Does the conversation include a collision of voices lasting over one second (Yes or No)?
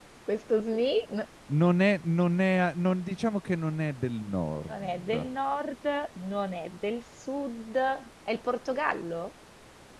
No